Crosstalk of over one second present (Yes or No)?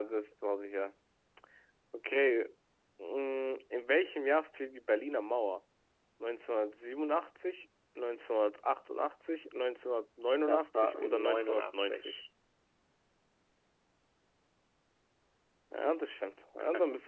Yes